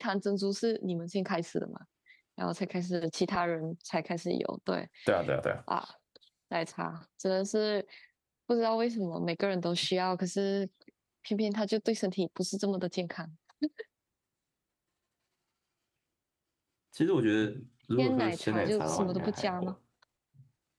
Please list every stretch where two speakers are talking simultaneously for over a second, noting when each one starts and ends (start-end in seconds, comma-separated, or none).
18.0-19.7